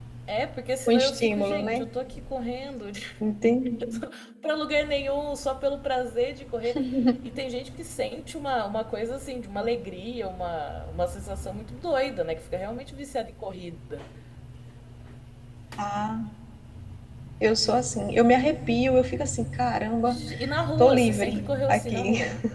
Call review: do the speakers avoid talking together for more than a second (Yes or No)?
No